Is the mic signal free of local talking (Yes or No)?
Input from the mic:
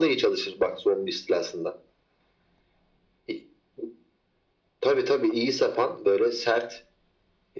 Yes